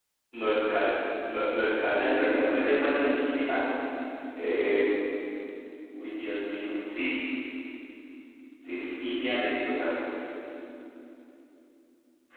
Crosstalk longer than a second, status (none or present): present